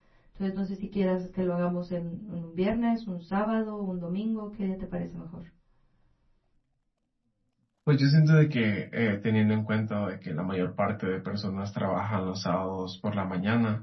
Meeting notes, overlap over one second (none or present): none